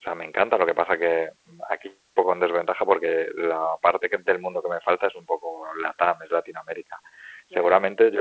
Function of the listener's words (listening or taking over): listening